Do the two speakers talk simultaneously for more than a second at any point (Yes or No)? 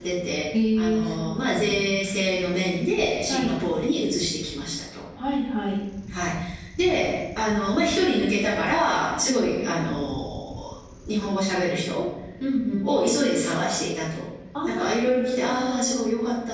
Yes